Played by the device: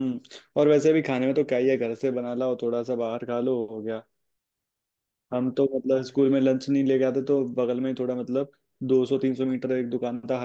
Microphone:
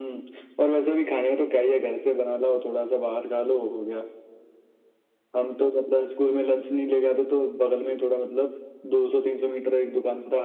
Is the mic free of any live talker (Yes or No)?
Yes